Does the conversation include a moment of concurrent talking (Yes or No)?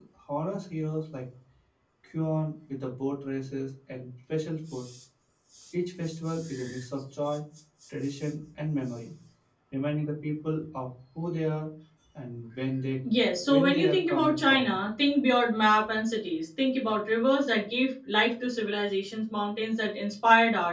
Yes